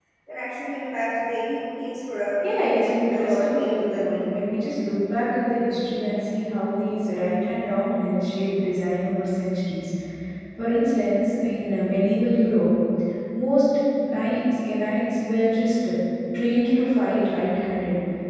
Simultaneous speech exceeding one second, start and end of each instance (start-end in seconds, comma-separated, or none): 2.4-4.3